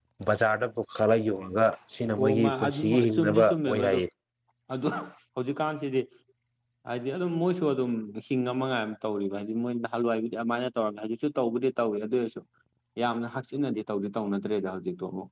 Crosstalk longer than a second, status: present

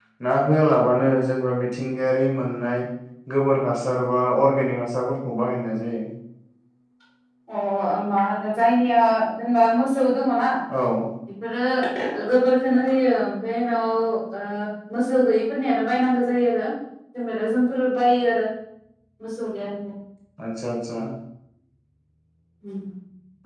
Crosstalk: none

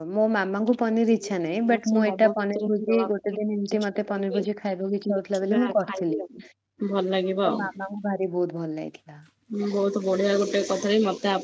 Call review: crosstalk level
present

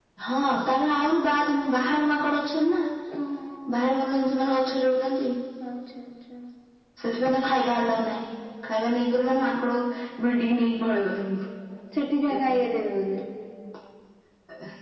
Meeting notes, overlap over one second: none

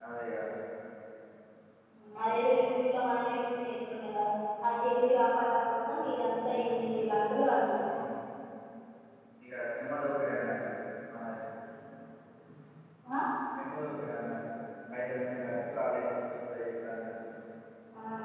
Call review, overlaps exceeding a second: none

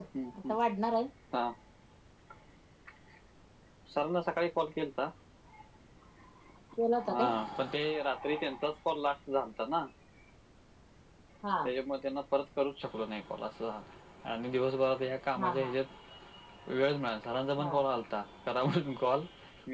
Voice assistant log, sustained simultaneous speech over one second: none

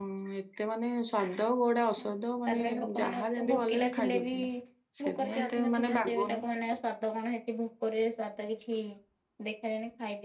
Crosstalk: present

